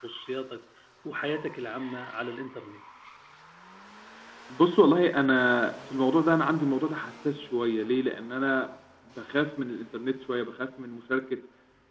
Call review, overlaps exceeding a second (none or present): none